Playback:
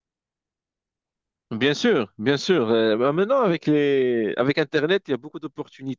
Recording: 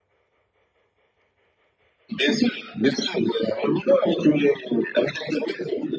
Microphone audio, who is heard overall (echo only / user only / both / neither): echo only